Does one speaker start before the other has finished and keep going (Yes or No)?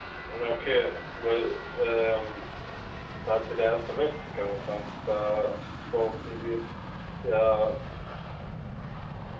No